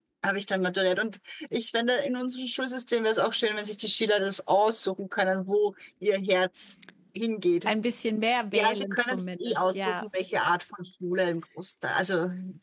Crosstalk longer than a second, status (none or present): present